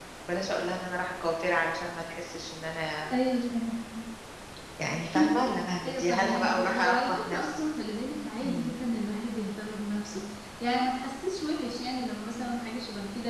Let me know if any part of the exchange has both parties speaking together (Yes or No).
Yes